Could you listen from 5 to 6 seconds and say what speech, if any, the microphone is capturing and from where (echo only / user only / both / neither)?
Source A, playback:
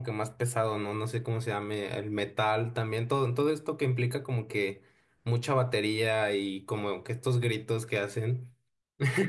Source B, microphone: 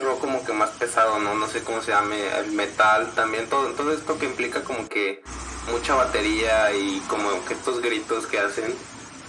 echo only